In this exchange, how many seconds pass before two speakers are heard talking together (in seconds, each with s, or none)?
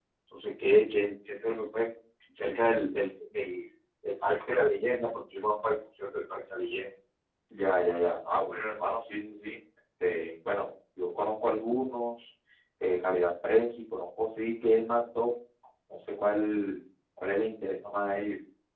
none